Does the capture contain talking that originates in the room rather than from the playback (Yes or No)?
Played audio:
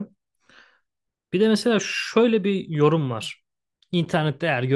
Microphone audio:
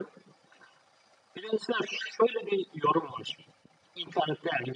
No